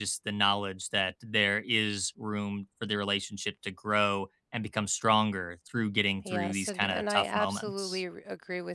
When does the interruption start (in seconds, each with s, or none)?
6.2 s